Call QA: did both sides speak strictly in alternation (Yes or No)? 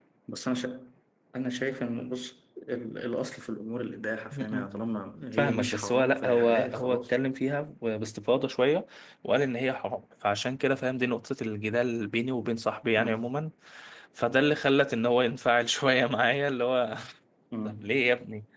No